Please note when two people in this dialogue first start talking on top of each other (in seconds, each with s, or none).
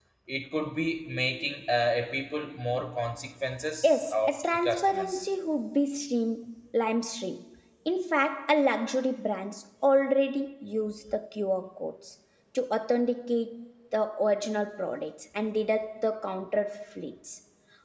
3.8 s